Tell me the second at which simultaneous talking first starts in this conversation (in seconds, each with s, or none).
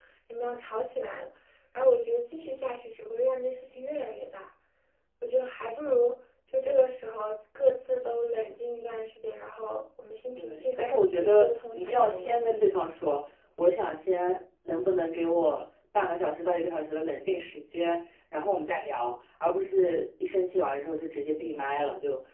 10.4 s